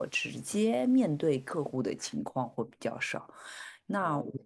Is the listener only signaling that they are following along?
Yes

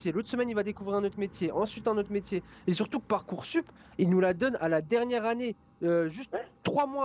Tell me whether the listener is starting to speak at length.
No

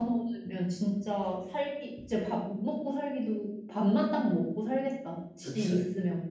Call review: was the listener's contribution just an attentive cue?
No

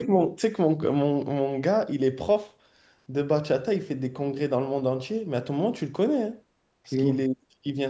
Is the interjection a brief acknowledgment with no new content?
Yes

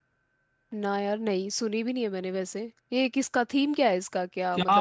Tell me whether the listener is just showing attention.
No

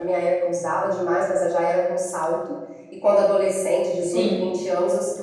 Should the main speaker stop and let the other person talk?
No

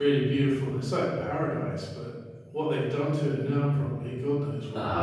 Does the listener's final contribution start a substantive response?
Yes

